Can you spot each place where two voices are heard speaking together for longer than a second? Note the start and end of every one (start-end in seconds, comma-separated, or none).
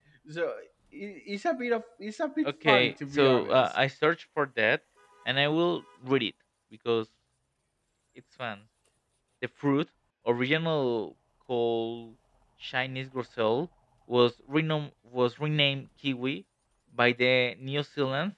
2.4-3.8